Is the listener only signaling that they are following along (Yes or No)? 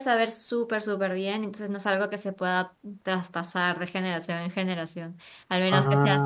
Yes